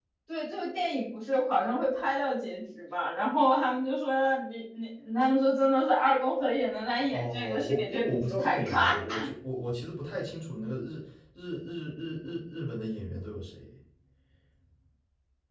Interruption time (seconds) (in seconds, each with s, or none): 7.1 s